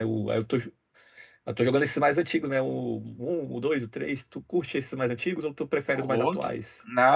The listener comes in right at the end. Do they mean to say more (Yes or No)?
Yes